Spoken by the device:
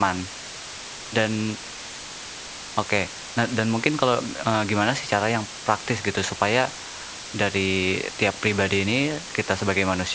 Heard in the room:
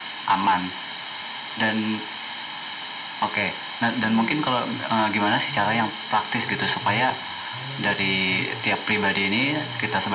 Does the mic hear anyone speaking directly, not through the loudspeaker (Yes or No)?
Yes